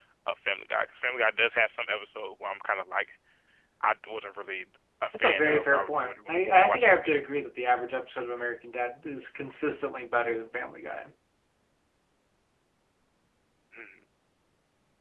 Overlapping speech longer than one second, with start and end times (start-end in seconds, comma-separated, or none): 5.1-7.2